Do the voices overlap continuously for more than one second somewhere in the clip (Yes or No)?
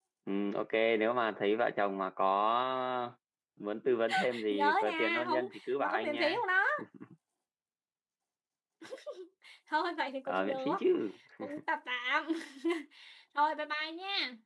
Yes